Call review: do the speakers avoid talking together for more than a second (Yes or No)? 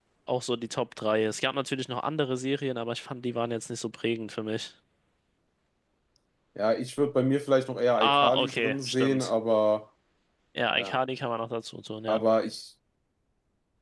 No